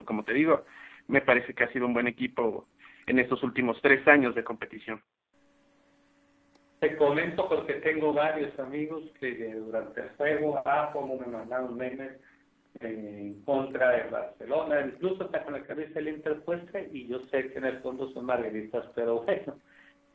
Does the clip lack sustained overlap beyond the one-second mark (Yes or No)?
Yes